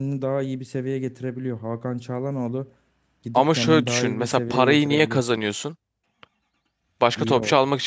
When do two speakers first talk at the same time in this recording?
3.3 s

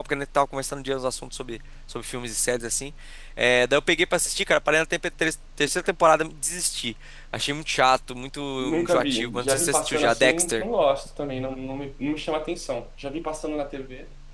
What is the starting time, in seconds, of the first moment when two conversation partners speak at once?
8.8 s

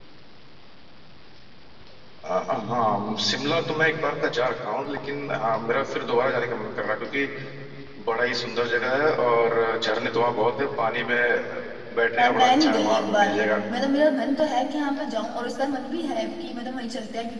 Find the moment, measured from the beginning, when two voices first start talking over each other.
12.2 s

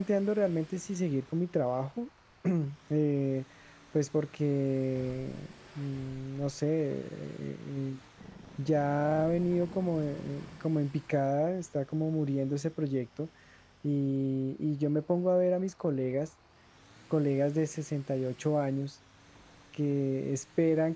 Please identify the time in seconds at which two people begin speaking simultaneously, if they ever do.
none

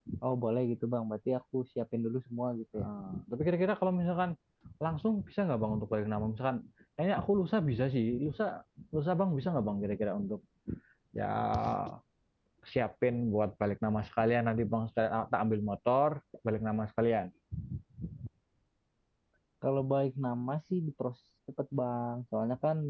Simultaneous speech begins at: none

